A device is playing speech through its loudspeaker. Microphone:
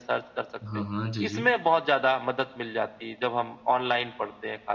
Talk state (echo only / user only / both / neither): both